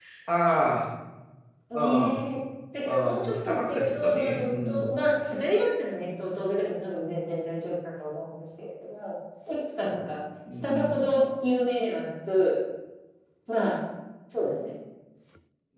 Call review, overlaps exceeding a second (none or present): present